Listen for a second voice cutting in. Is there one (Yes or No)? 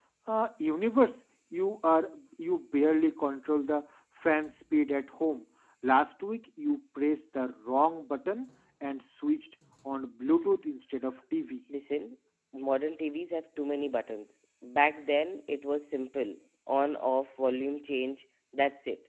No